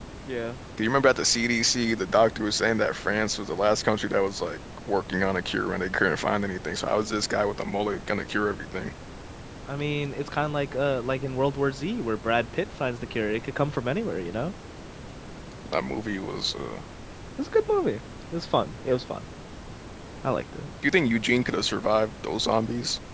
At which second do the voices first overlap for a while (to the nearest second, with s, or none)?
none